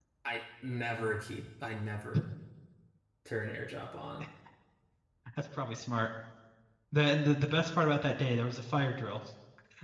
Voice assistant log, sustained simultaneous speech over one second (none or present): none